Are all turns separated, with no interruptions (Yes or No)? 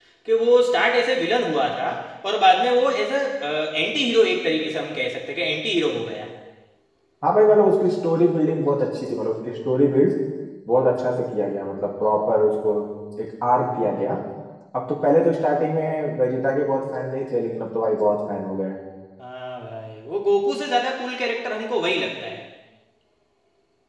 Yes